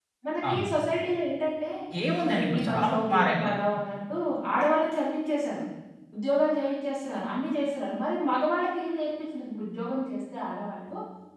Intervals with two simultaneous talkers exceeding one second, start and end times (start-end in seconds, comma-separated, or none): 2.2-3.5